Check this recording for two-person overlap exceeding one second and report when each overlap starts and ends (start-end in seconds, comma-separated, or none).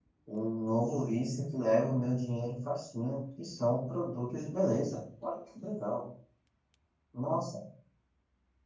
none